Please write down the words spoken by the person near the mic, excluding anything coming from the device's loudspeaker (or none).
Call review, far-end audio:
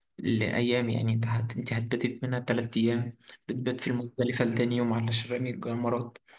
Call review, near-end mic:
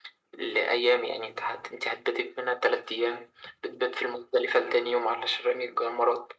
none